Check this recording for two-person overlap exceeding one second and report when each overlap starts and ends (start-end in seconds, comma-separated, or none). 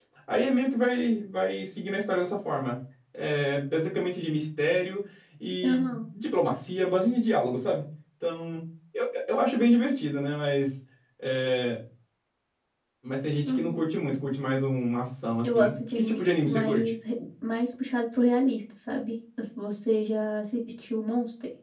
15.4-16.9